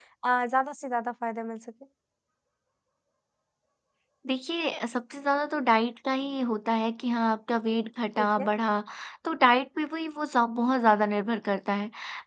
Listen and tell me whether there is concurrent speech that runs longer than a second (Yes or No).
No